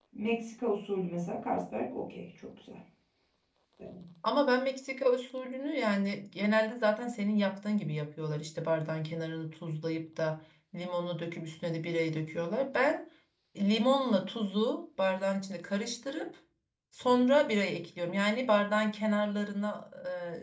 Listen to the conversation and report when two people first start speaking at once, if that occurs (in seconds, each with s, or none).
none